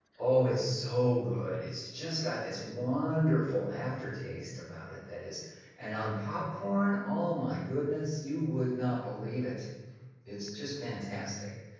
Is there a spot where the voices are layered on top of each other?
No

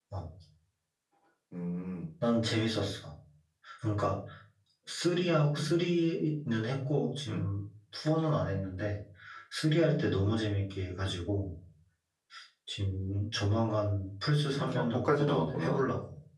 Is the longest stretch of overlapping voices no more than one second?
No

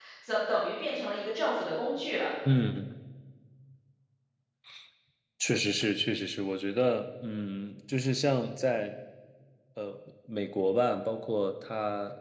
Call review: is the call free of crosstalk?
Yes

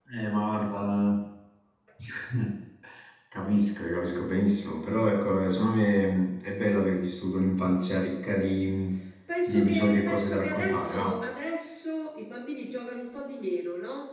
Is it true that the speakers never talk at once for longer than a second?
No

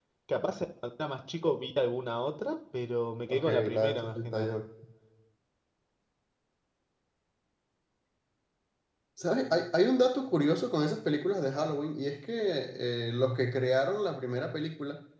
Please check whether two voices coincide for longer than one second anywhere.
Yes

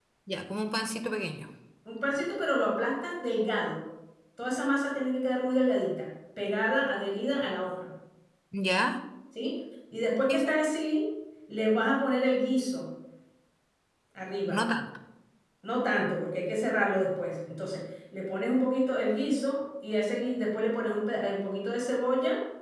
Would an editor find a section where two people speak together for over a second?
No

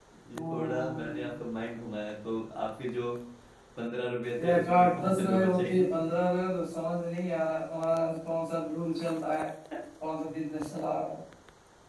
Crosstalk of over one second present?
Yes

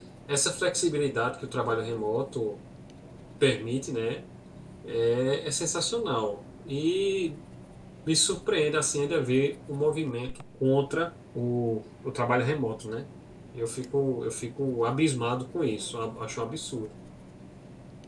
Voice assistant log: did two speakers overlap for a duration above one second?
No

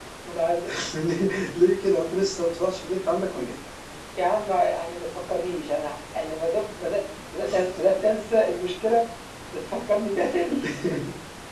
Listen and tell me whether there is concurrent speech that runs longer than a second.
No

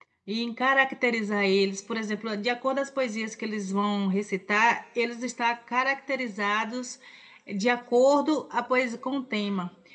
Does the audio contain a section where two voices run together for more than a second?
No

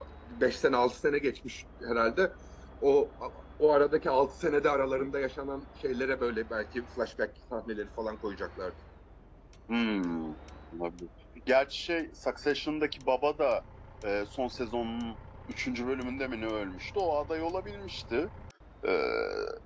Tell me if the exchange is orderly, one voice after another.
Yes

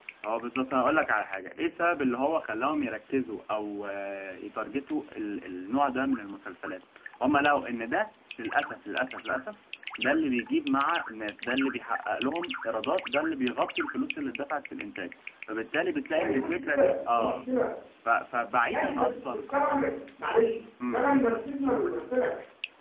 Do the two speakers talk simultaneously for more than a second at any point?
Yes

